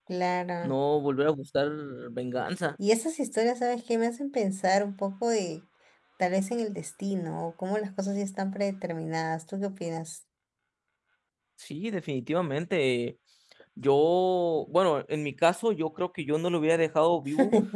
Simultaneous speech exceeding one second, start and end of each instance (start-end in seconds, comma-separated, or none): none